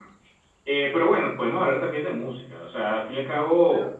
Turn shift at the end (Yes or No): Yes